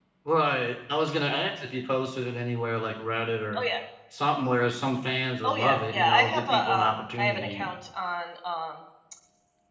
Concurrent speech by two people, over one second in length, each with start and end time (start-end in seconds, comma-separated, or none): 5.4-7.7